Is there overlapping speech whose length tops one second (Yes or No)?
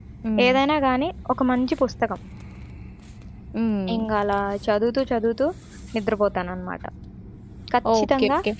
No